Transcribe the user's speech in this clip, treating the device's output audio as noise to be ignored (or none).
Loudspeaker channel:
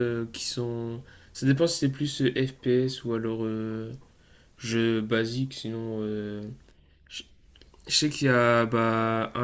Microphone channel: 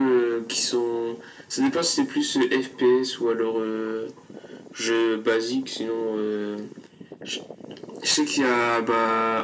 none